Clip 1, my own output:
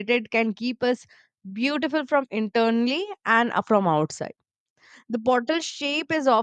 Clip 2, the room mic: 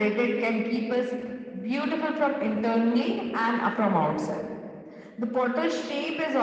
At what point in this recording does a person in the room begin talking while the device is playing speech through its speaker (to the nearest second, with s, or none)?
none